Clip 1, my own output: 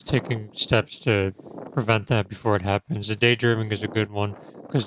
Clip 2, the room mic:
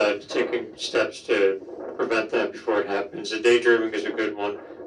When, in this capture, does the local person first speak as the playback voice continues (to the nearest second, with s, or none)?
none